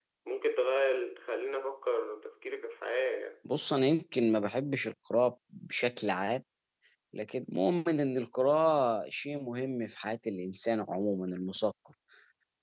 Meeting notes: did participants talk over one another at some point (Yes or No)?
No